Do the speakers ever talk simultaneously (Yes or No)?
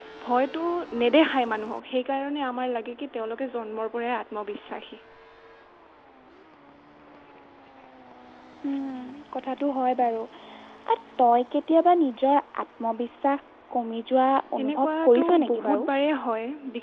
Yes